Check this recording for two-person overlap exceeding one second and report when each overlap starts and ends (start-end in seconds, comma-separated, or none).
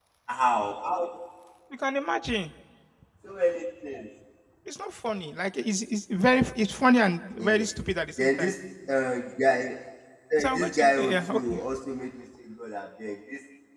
10.4-11.6